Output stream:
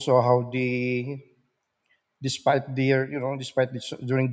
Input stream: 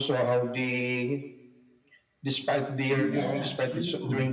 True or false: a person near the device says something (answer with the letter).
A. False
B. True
B